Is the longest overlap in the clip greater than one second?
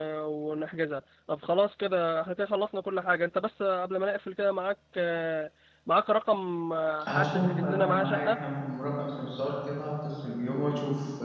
Yes, from 7.0 s

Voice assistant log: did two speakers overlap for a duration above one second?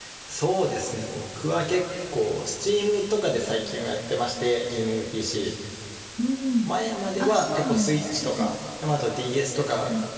Yes, from 7.2 s

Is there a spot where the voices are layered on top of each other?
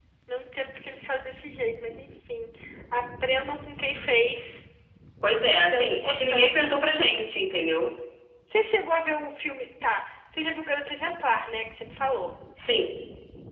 Yes, from 5.5 s

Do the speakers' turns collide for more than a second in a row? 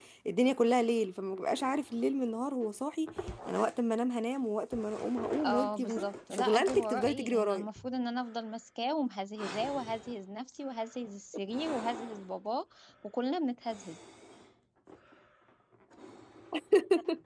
Yes, from 5.4 s

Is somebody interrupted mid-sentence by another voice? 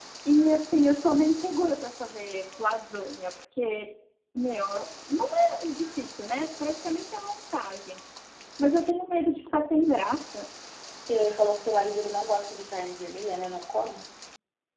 No

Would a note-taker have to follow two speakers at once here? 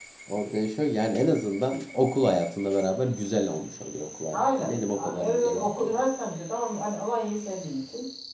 Yes, from 4.3 s

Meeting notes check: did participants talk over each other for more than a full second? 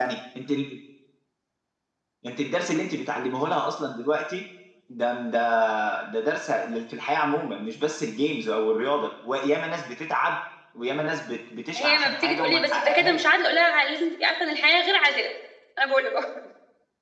Yes, from 11.8 s

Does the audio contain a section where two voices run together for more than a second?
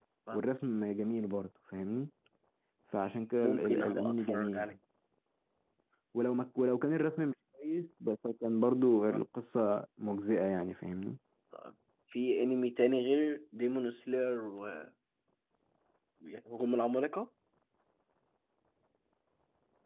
Yes, from 3.4 s

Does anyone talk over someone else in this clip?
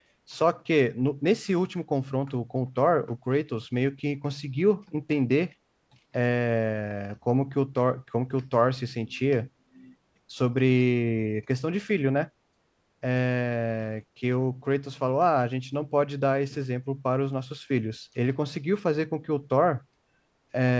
No

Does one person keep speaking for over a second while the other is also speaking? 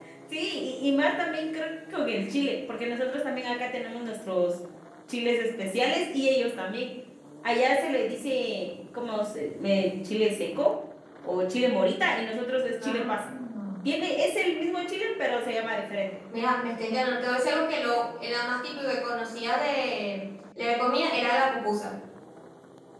No

